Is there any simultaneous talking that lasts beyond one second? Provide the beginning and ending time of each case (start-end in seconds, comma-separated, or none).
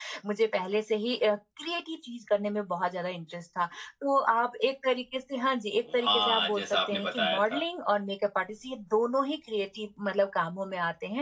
6.0-7.6